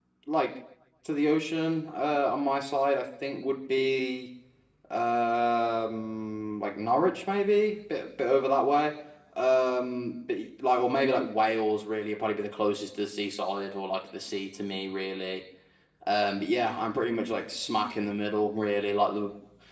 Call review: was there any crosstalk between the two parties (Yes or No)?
No